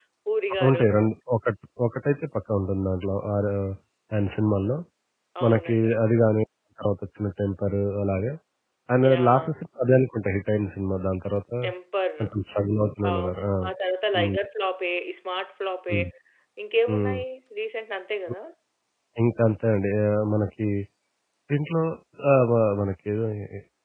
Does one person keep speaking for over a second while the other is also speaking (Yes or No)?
No